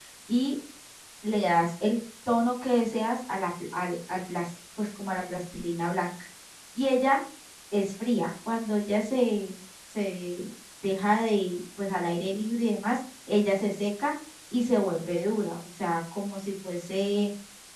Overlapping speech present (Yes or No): No